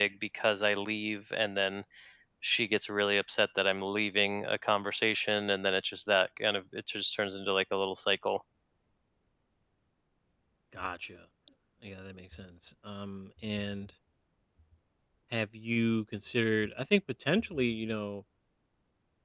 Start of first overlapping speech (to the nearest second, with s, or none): none